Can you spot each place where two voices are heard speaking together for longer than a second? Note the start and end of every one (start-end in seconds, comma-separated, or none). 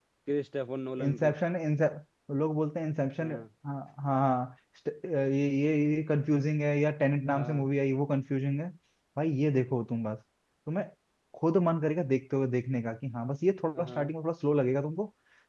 none